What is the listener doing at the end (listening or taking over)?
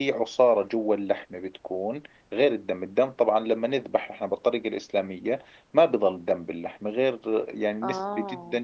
listening